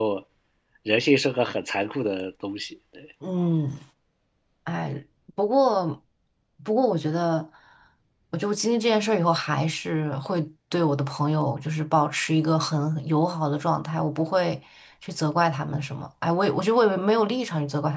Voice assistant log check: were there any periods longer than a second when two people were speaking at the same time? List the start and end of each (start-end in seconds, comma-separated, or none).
none